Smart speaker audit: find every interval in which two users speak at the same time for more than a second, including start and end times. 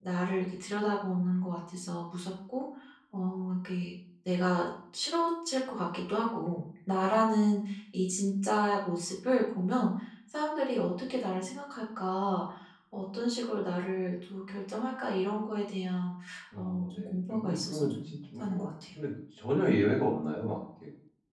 16.6-18.7

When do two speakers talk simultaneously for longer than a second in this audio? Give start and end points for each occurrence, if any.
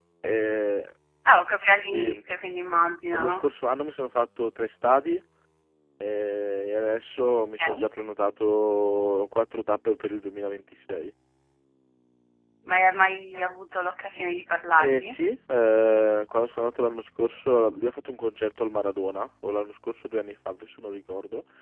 none

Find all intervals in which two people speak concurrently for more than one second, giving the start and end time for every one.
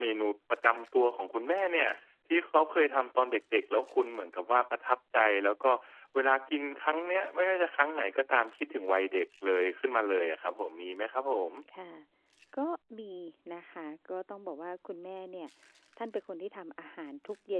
none

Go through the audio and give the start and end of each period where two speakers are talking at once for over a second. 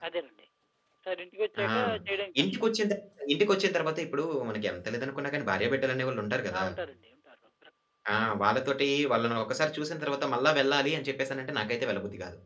none

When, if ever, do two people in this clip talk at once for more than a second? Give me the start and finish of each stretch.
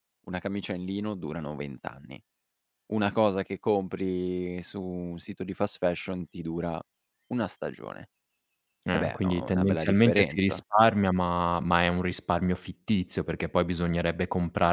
8.9-10.6

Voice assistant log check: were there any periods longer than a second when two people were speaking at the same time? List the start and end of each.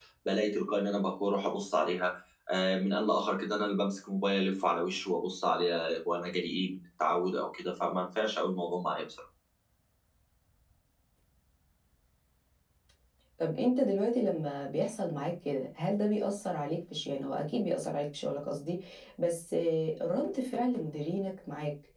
none

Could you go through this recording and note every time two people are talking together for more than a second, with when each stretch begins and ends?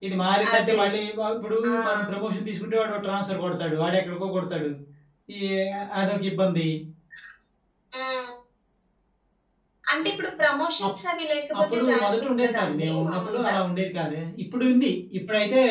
11.6-13.5

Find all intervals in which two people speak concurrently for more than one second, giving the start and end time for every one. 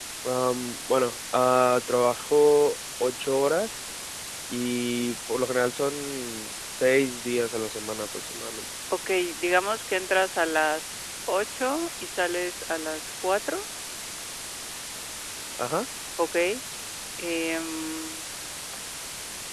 none

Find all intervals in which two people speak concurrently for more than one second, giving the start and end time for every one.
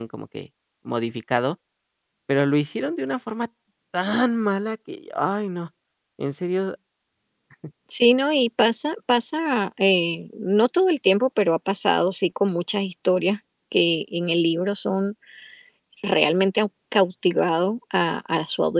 none

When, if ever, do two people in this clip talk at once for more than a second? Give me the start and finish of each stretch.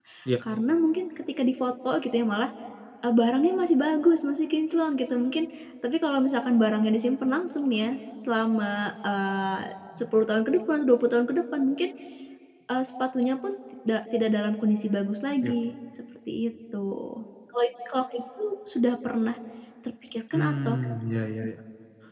none

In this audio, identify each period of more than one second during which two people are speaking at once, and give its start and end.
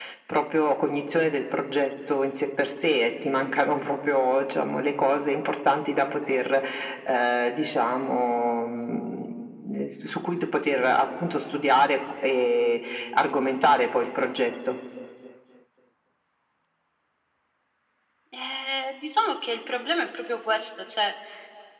none

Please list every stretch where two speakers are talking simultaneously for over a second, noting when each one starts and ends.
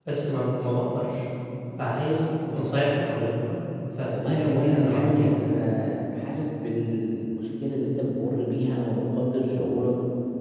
4.1-5.7

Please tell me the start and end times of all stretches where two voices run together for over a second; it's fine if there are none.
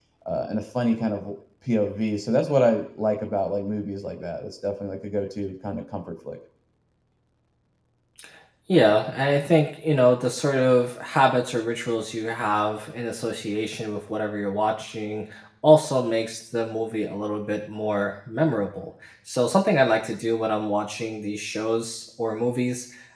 none

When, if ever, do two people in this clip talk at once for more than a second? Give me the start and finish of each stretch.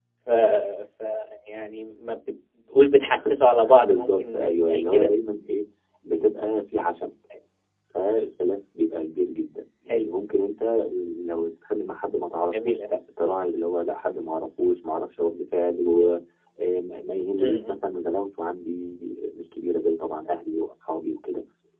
3.8-5.1

